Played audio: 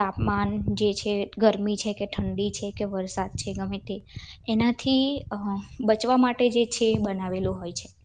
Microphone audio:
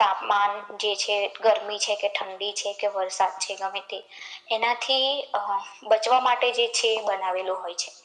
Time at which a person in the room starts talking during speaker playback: none

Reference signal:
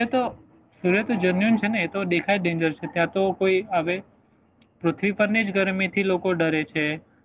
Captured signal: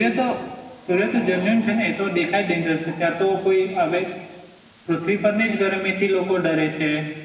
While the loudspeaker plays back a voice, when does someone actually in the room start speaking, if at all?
none

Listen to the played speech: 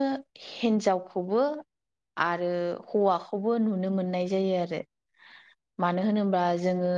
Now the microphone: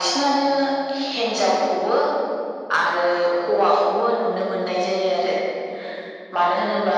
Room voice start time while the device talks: none

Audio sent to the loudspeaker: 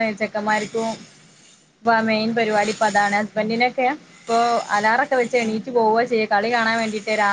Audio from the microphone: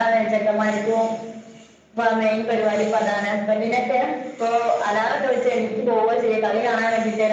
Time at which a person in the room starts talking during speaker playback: none

